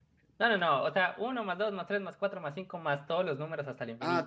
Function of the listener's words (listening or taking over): taking over